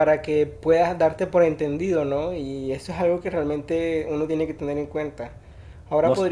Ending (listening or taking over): listening